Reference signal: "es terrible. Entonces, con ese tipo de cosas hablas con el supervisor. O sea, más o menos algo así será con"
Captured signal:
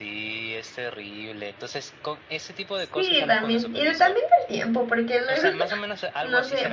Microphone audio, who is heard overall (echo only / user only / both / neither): both